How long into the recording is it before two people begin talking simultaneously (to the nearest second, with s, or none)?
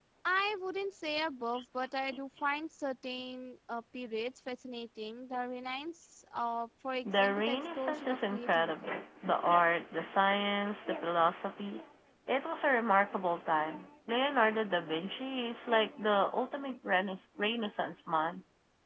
7 s